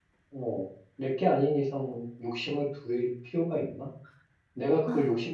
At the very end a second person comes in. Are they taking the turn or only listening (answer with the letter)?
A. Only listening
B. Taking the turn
A